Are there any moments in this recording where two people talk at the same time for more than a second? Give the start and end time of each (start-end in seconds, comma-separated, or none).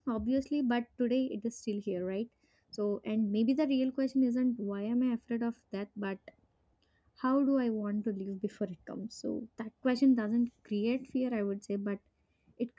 none